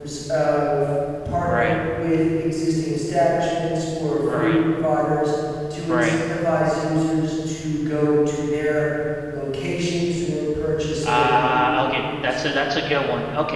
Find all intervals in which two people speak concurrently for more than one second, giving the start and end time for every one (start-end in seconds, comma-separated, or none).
11.0-12.5